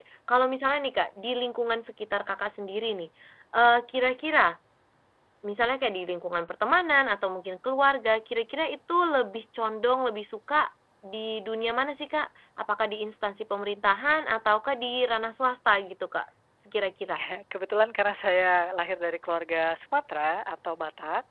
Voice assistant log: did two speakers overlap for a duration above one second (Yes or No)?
No